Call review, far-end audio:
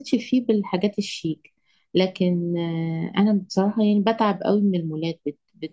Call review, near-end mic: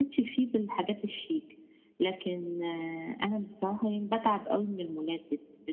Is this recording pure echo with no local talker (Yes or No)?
Yes